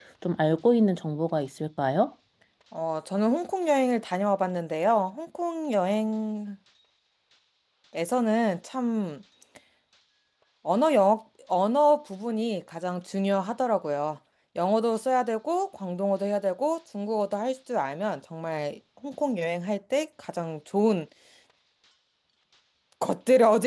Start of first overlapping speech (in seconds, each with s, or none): none